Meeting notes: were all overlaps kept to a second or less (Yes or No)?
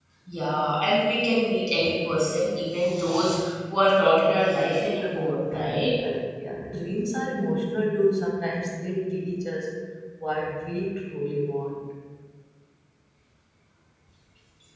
Yes